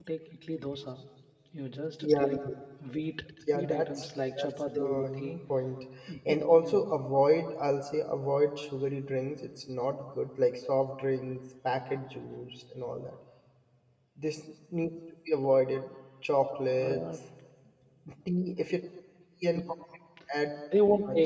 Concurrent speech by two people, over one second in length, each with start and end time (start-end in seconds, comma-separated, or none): 3.5-5.4